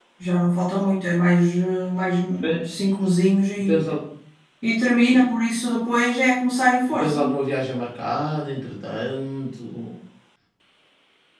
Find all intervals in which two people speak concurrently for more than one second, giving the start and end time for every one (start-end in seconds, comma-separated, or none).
none